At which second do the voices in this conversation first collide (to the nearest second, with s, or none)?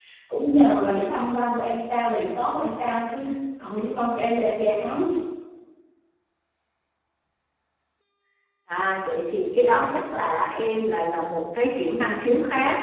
none